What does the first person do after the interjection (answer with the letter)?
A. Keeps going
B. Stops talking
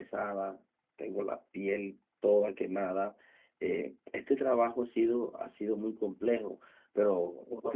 B